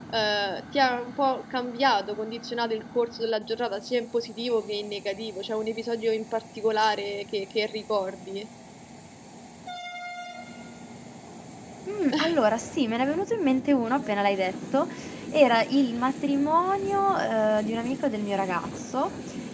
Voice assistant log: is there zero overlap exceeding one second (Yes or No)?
Yes